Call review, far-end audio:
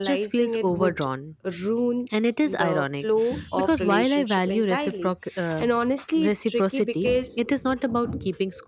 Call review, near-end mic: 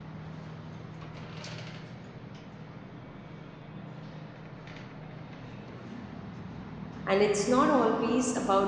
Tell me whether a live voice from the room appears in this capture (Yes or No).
Yes